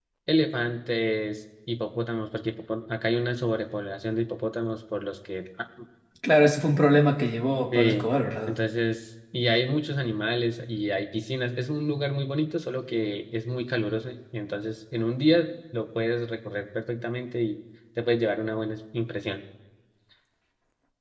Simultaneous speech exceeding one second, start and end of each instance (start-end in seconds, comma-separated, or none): none